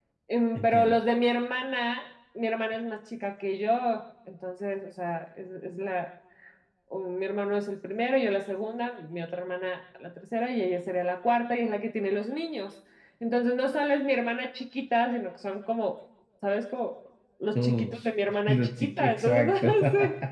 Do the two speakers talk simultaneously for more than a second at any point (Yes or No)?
Yes